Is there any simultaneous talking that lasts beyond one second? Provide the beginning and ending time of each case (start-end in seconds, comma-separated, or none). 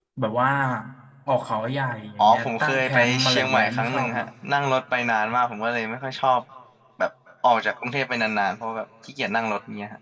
2.2-4.2